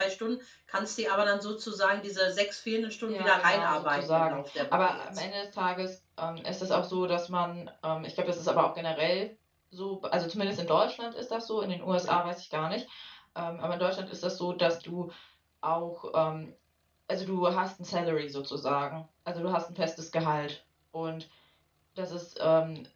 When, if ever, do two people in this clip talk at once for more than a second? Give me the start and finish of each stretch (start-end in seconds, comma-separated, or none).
3.1-5.0